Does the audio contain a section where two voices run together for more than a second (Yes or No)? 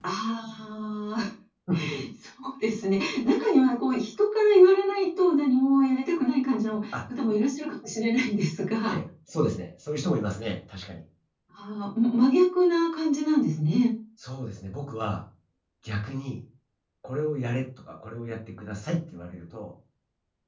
No